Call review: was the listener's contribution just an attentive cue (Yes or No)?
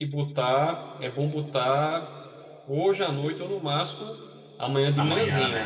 Yes